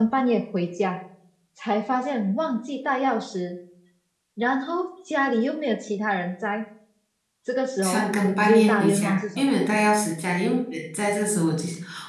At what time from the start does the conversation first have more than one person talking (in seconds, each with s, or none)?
7.8 s